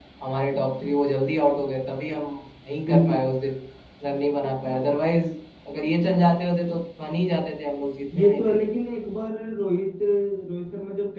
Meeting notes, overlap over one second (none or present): none